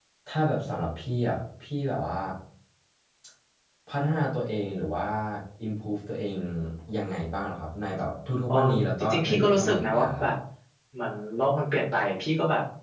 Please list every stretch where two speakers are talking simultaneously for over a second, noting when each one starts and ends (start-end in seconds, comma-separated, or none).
9.0-10.3